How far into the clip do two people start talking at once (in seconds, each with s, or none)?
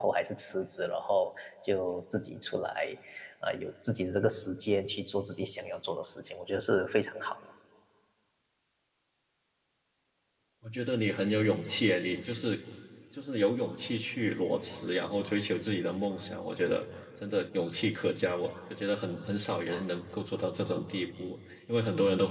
none